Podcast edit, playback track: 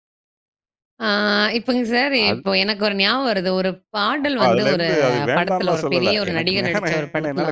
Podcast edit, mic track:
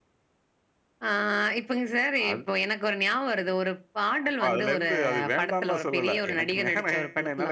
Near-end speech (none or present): none